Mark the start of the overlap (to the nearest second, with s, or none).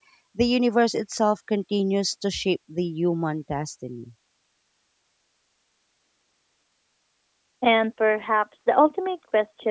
none